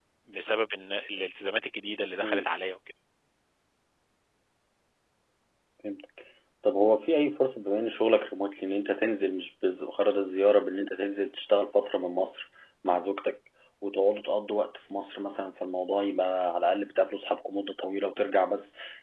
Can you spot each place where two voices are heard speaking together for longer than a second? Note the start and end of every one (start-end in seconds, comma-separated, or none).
none